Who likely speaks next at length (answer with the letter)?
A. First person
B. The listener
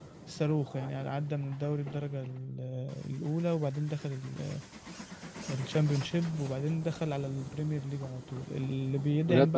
A